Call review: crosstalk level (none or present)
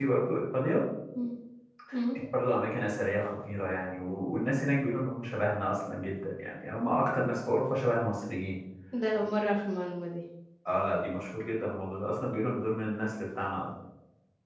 none